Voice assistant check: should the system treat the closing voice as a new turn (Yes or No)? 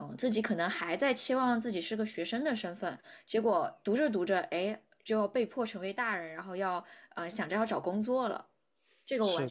Yes